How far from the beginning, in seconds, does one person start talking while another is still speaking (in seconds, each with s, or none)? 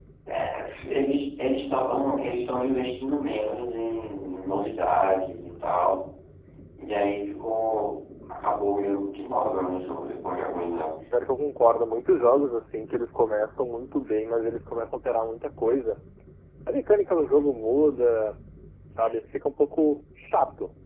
none